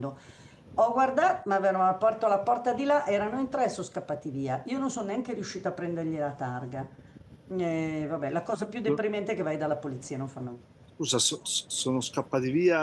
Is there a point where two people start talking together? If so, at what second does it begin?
none

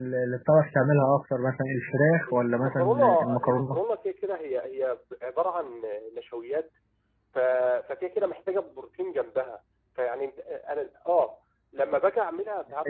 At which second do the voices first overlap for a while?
2.3 s

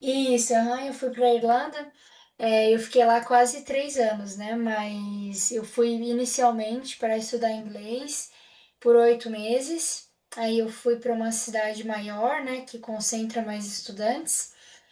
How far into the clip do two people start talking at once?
none

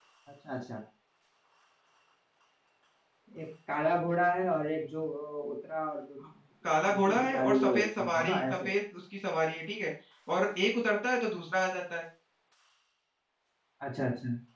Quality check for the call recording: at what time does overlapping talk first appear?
6.9 s

